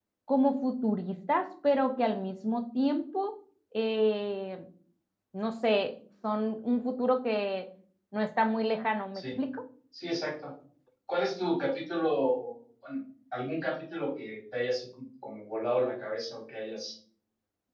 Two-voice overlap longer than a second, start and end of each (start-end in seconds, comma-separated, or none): none